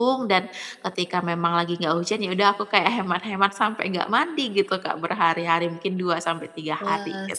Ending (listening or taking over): taking over